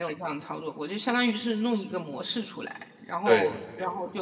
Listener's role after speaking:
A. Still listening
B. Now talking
A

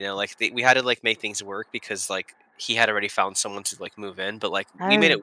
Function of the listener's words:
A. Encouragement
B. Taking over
A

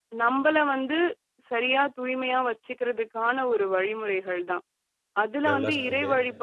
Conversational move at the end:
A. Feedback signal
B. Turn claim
A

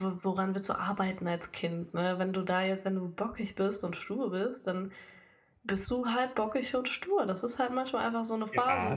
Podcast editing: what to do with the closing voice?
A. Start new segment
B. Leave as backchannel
A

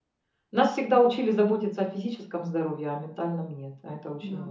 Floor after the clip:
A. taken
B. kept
A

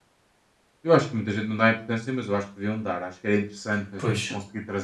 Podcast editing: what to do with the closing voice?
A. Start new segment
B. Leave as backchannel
B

